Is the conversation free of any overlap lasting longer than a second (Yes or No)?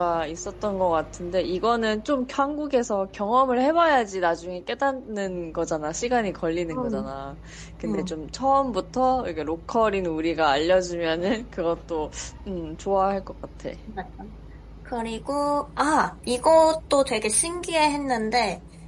Yes